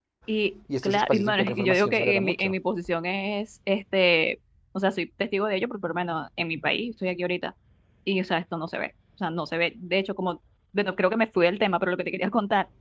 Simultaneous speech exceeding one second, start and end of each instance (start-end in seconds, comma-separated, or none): 0.8-2.5